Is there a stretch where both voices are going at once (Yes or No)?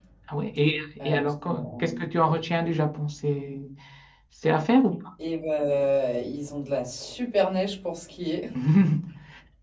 Yes